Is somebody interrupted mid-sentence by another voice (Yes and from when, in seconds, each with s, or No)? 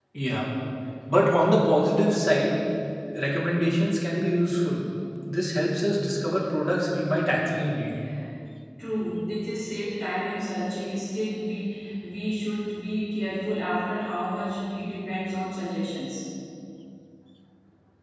No